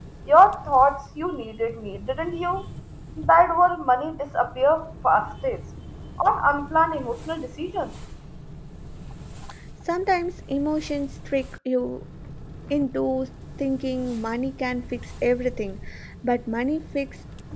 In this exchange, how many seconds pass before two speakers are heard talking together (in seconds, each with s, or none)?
none